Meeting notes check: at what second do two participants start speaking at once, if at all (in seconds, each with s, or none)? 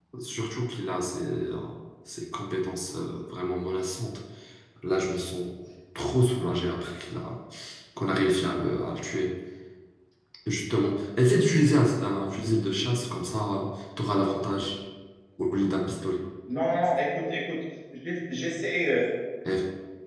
none